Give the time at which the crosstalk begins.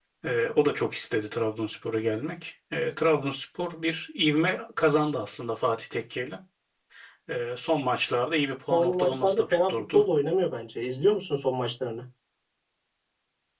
8.7 s

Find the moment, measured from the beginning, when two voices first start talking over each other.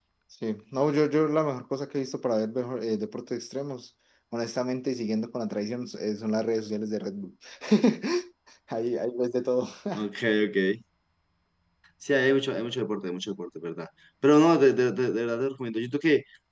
none

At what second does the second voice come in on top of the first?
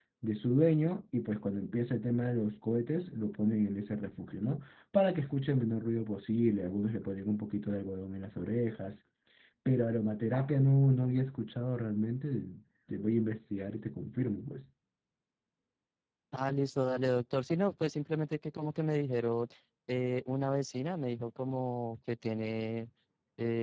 none

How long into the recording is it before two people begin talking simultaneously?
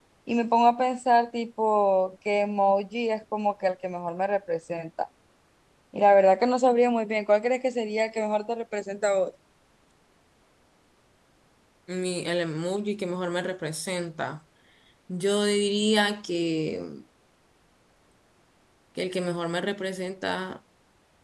none

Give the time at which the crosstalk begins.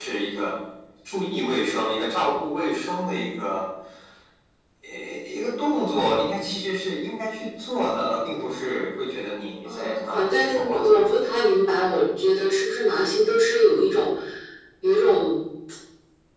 9.6 s

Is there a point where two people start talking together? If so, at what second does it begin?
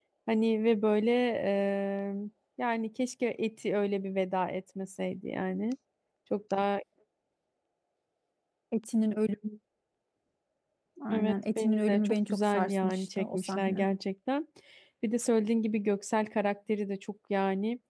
11.1 s

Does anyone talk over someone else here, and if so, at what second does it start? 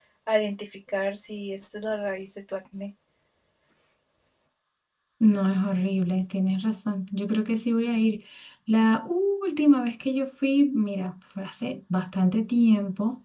none

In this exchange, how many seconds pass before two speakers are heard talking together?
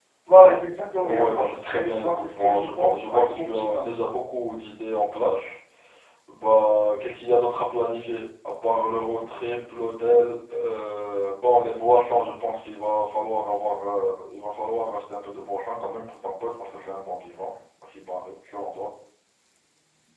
1.0 s

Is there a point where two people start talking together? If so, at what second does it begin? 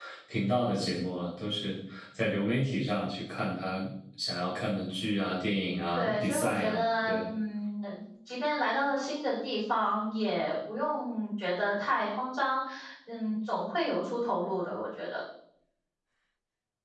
6.0 s

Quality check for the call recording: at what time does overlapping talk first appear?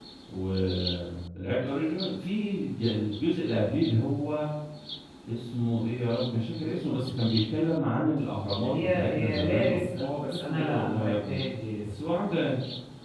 8.6 s

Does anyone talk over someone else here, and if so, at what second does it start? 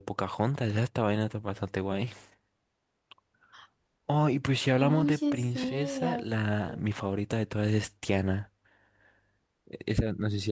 4.8 s

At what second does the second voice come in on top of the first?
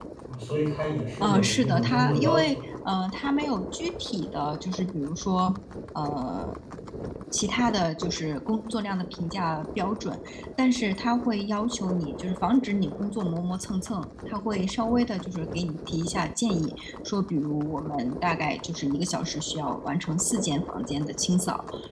1.2 s

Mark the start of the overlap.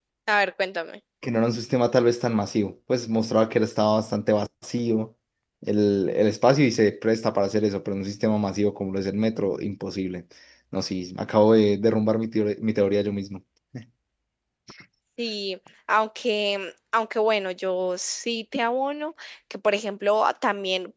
none

